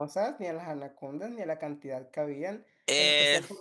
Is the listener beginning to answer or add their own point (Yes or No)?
No